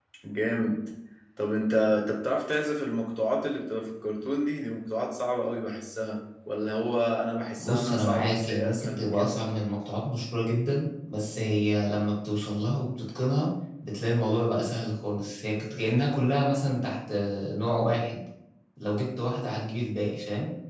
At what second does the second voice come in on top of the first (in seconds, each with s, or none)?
7.6 s